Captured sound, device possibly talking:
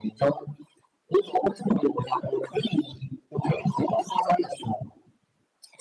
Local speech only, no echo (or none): none